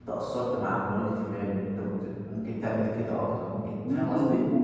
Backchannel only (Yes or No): No